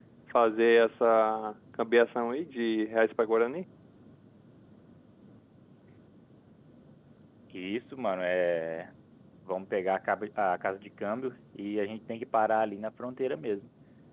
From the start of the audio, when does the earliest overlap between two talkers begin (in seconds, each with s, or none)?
none